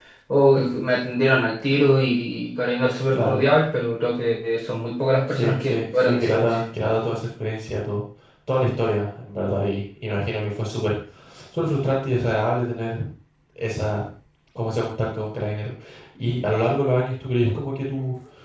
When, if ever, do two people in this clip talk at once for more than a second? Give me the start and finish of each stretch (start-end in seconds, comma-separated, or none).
5.3-6.6